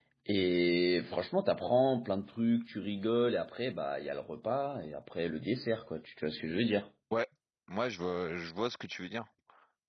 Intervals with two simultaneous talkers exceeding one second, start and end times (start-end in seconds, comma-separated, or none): none